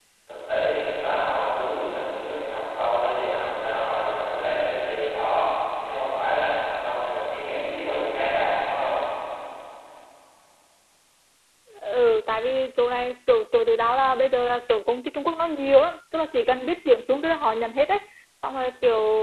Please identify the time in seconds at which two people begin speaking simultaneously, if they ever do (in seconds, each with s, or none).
none